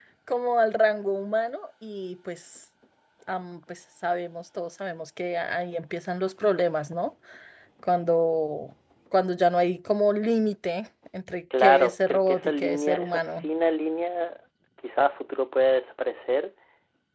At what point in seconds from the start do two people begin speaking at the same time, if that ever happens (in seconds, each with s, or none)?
11.5 s